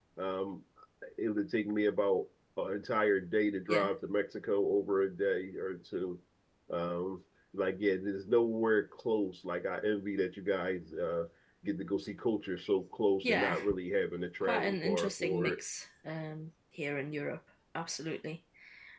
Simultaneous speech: Yes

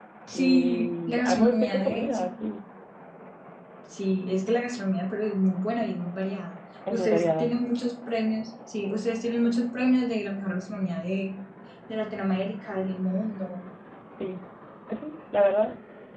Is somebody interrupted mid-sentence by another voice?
Yes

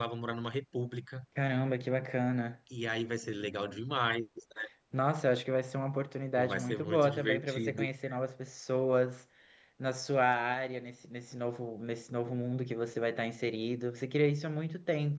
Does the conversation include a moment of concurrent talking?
Yes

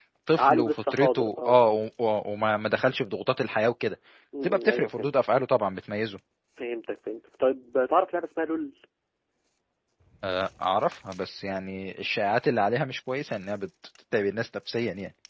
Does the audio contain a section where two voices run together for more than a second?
Yes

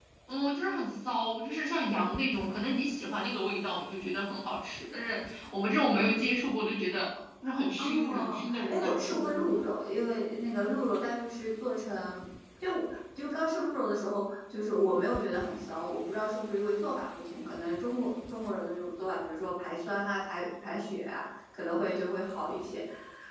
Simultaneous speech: Yes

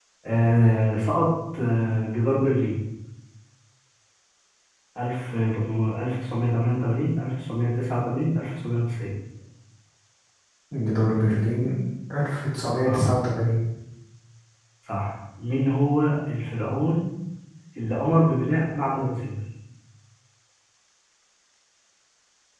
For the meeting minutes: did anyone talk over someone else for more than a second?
No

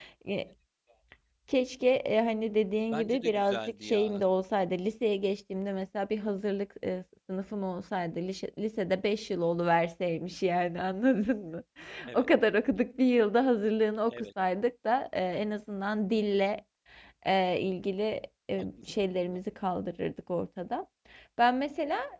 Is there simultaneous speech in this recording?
Yes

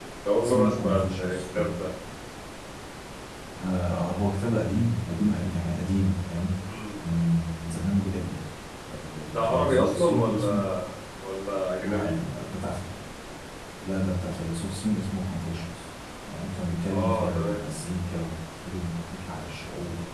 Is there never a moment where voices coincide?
No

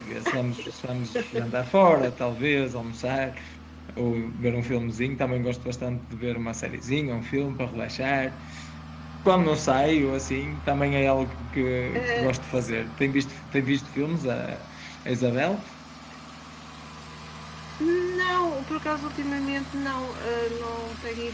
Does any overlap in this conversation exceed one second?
No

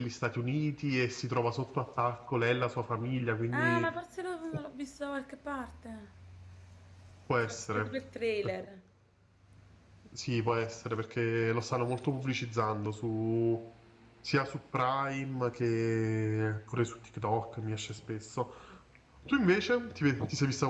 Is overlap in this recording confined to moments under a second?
Yes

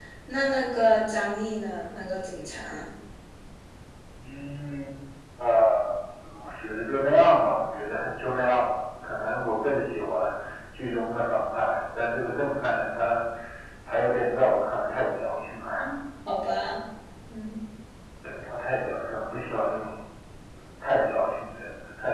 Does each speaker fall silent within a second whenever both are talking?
Yes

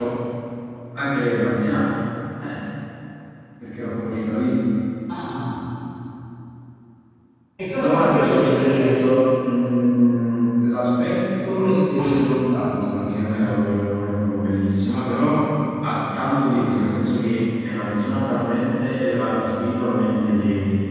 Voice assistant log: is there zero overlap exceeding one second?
No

